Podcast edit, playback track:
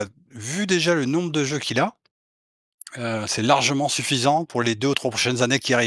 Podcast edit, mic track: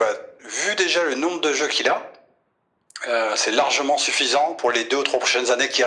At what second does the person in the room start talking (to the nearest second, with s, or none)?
none